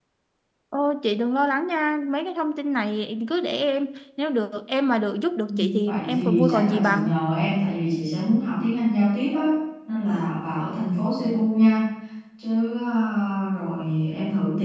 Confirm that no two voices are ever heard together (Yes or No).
No